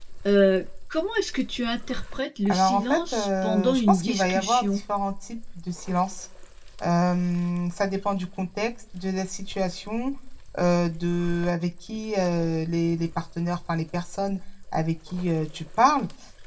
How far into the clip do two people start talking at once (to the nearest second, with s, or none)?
2 s